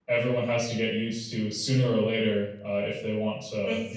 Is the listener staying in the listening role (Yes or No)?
No